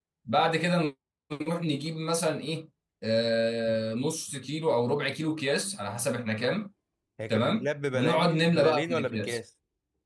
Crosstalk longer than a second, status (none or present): present